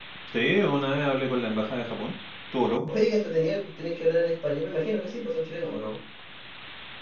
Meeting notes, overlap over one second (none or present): none